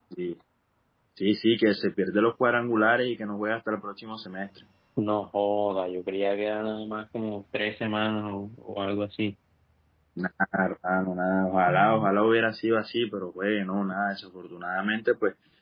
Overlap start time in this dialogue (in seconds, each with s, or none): none